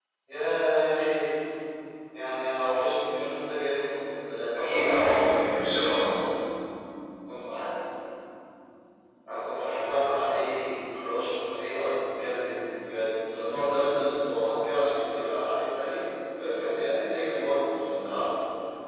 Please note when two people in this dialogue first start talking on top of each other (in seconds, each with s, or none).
4.5 s